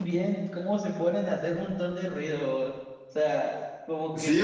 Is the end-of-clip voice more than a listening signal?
Yes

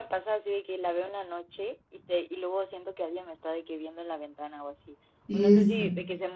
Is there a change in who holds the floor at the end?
No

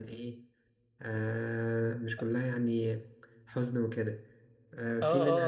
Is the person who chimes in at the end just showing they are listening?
No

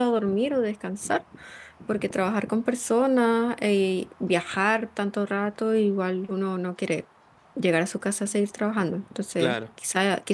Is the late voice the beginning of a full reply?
No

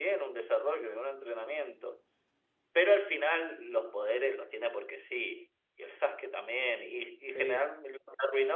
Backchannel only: Yes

